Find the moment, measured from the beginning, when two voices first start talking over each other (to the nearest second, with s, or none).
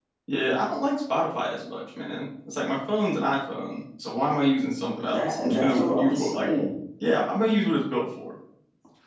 5 s